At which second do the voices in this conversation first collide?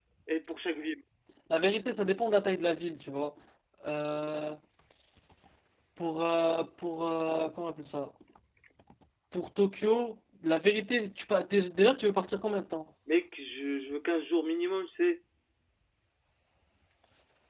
none

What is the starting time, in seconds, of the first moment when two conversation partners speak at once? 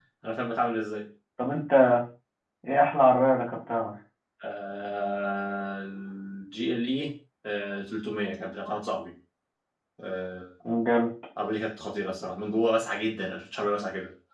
none

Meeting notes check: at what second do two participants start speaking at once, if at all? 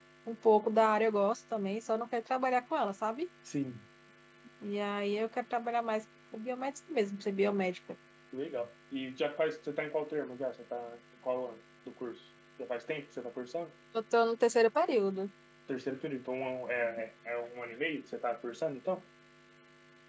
none

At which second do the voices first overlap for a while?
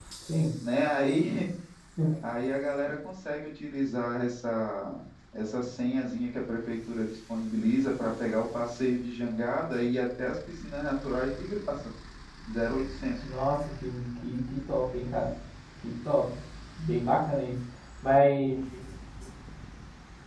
none

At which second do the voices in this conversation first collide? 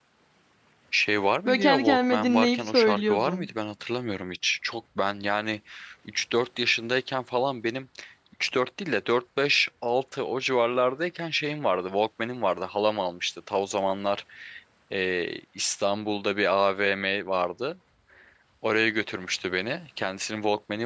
1 s

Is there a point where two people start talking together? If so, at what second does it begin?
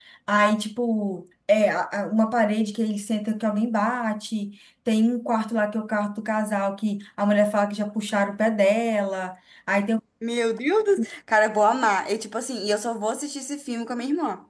none

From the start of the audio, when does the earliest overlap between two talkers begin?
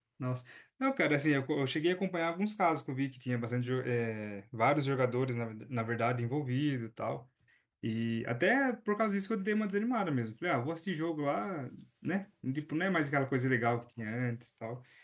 none

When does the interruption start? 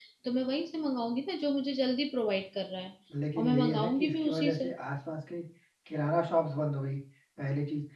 3 s

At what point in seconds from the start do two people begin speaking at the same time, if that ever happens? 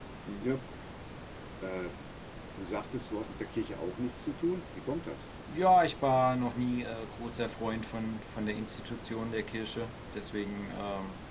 none

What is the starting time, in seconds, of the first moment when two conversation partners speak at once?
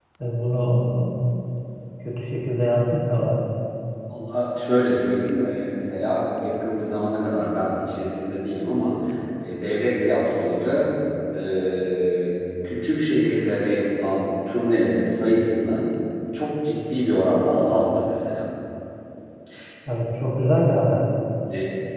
none

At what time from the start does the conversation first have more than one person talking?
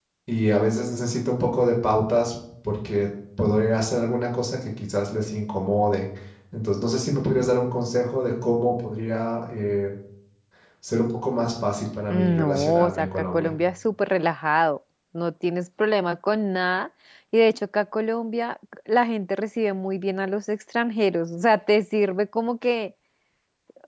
12 s

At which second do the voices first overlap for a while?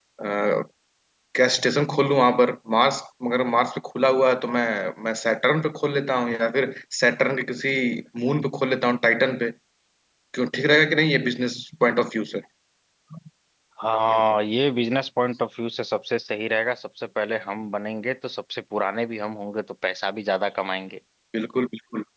none

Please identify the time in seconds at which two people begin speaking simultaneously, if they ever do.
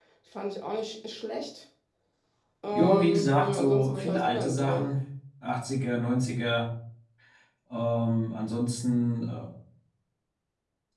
3 s

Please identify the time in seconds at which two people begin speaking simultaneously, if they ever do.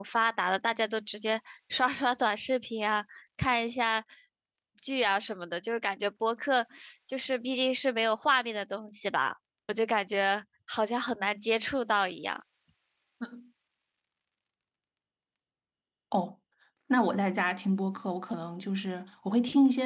none

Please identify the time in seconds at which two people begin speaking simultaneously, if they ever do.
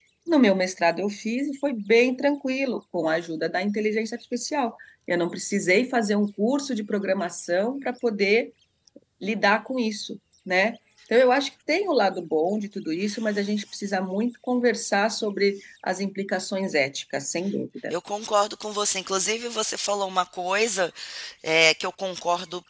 none

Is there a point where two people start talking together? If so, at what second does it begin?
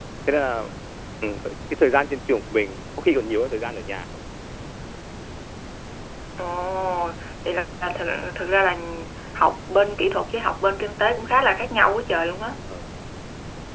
none

